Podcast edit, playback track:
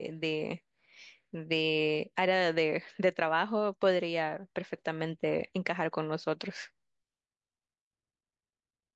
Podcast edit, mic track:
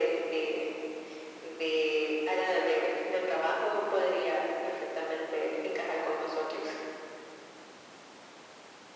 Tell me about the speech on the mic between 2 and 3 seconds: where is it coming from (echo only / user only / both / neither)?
echo only